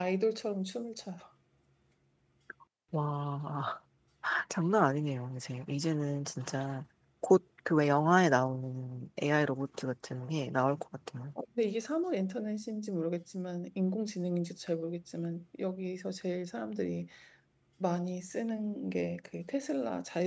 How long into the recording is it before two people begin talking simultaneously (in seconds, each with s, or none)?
none